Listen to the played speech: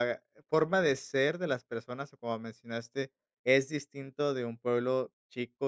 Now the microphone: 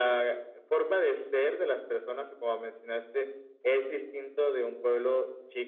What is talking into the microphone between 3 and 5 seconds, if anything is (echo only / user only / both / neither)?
echo only